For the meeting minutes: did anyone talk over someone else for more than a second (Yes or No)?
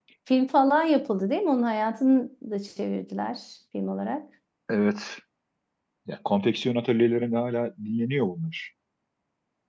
No